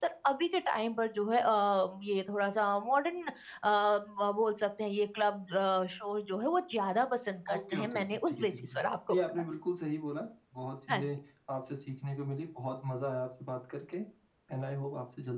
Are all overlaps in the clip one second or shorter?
No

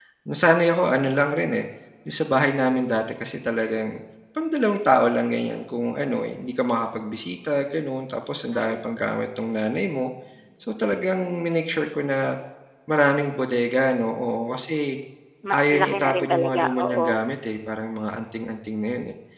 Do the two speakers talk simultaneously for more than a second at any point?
Yes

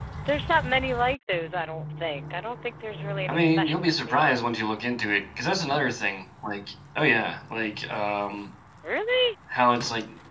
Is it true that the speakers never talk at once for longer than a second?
No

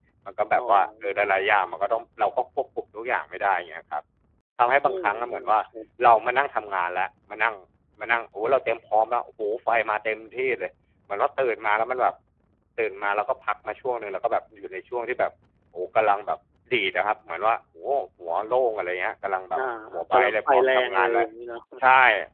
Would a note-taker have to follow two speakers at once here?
Yes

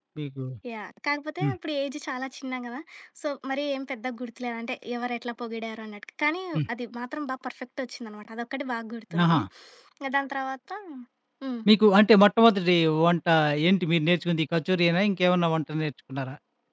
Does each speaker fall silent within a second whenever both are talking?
Yes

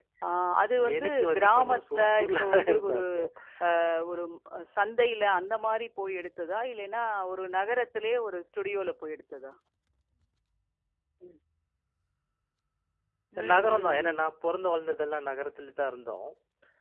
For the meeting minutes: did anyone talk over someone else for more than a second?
Yes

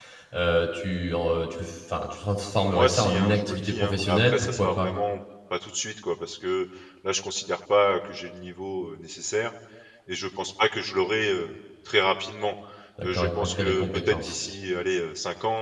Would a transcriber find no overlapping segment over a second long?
No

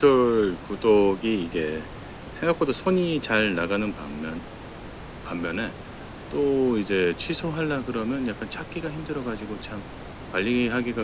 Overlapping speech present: No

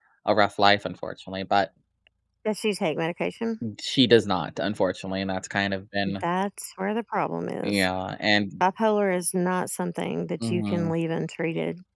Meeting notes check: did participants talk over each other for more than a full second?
No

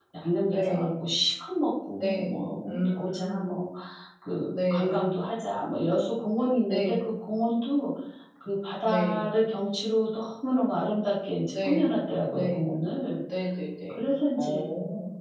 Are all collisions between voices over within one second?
No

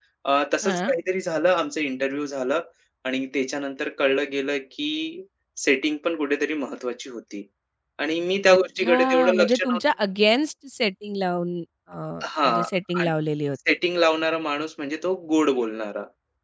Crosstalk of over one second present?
Yes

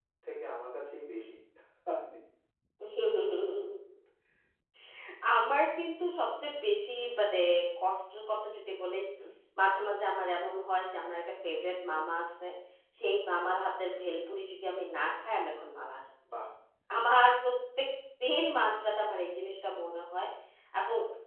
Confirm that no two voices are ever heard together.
Yes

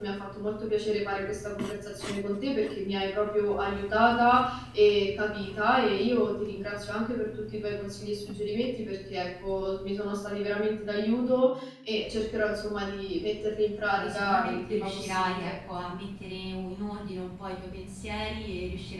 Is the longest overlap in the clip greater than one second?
Yes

